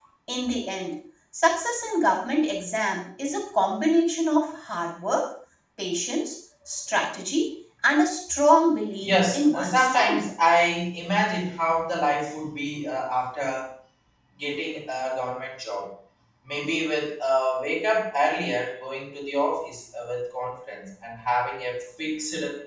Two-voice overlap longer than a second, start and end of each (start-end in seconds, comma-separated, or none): 9.0-10.3